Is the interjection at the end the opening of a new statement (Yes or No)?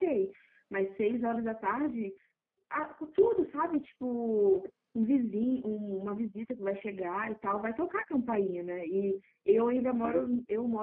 No